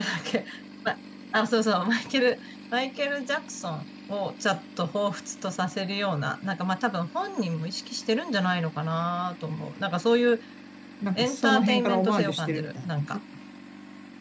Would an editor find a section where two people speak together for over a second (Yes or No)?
Yes